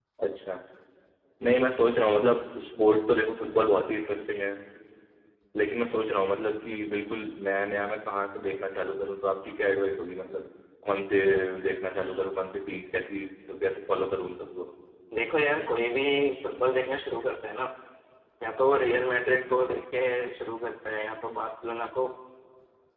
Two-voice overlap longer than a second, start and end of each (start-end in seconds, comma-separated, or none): none